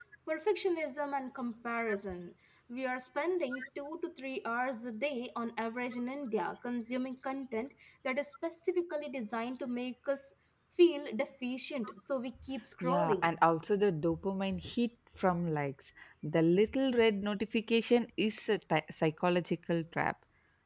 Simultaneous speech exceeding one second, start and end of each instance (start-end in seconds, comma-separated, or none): none